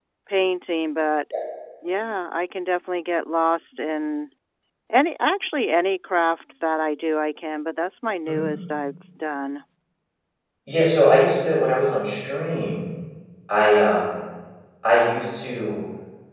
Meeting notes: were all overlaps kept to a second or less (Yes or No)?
Yes